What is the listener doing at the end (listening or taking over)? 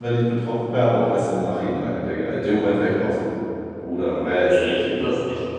taking over